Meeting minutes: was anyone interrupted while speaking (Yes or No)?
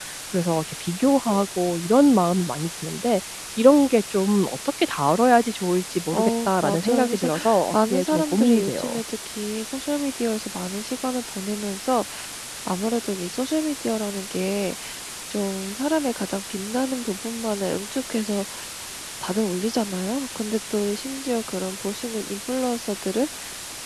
Yes